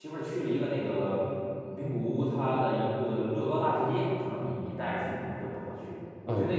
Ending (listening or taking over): taking over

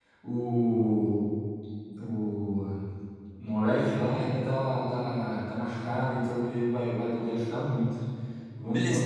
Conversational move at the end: taking over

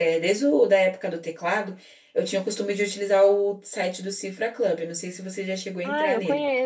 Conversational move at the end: taking over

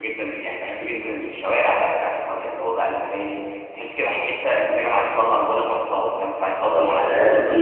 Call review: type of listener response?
taking over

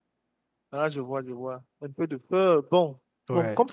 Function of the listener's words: listening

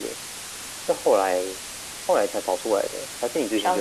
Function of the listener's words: taking over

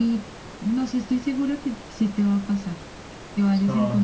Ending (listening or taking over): taking over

